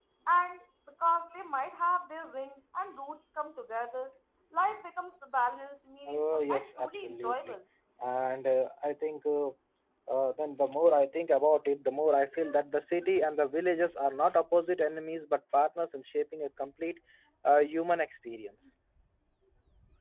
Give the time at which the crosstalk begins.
6.1 s

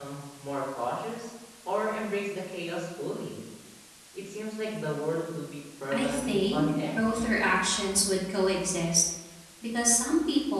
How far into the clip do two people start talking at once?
5.9 s

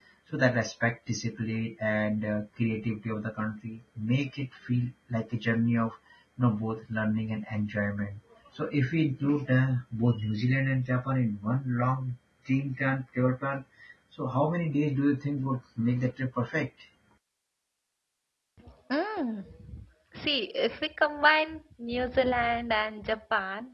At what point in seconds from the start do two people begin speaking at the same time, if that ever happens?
none

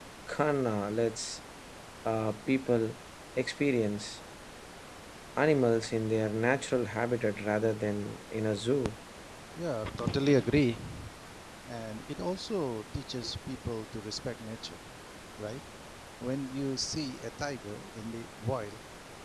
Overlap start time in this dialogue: none

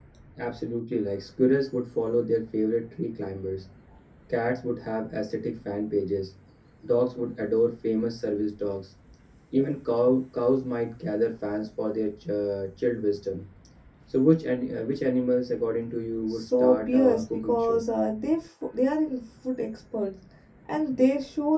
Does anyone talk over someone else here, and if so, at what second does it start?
16.3 s

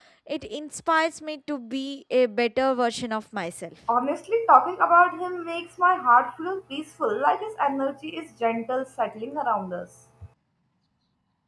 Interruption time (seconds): none

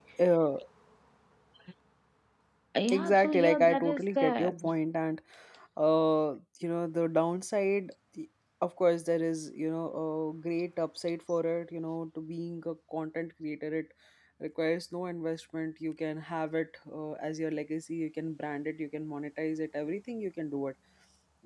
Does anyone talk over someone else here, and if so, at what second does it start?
2.9 s

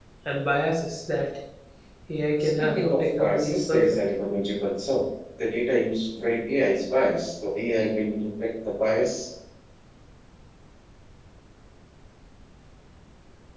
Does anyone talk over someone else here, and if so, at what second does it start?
2.6 s

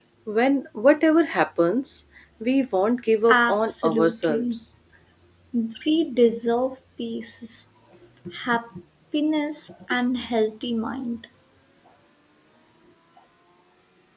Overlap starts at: 3.3 s

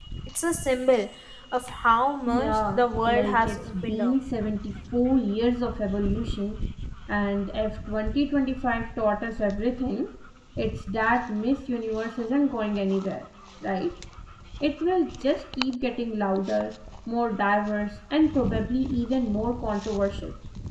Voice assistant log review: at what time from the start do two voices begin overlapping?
2.3 s

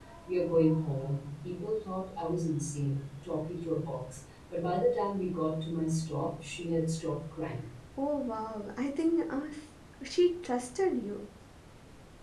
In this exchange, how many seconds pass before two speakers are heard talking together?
none

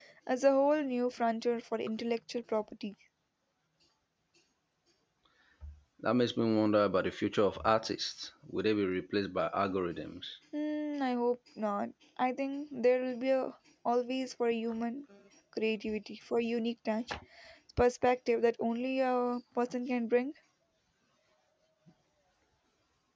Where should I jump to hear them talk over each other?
none

